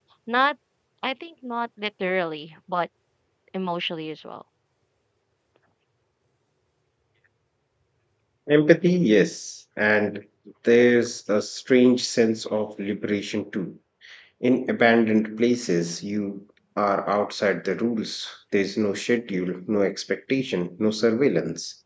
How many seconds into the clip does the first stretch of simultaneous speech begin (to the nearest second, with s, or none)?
none